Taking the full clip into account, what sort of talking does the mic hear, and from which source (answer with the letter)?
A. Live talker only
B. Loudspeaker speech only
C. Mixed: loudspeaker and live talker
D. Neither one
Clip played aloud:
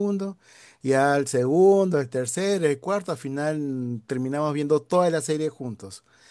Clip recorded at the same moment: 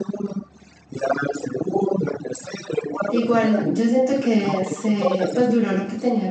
C